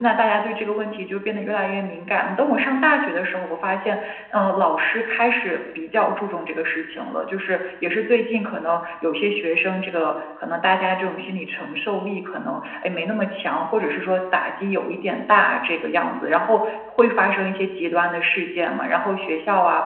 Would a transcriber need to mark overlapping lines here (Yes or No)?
No